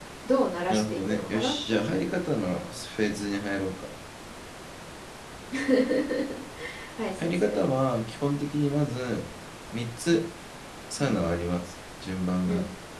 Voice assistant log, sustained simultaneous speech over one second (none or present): present